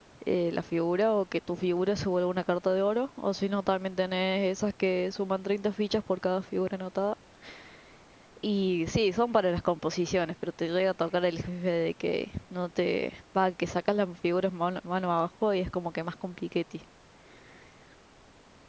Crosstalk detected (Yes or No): No